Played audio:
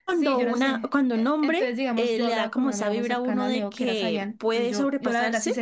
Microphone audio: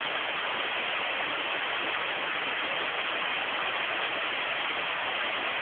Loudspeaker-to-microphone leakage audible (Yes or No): No